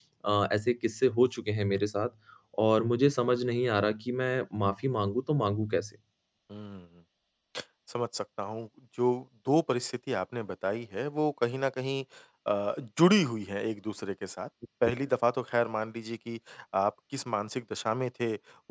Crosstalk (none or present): none